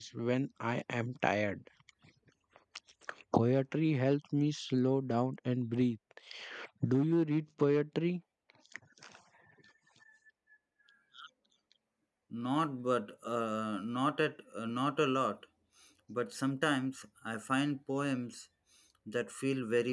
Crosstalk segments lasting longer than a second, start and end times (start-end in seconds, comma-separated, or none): none